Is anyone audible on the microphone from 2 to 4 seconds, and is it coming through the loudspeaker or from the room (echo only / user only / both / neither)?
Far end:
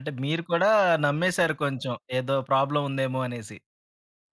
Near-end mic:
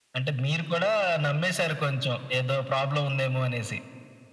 echo only